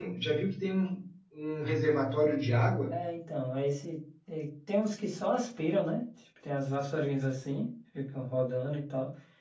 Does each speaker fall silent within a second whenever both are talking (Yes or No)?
Yes